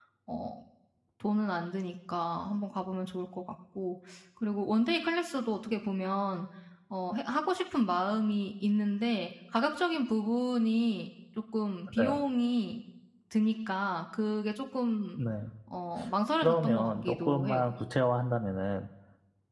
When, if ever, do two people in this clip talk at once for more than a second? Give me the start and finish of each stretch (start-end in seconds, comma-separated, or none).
16.4-17.7